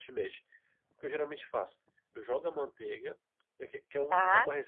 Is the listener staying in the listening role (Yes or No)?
Yes